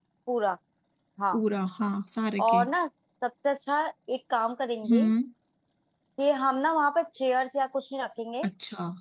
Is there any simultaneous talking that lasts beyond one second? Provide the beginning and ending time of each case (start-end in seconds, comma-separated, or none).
none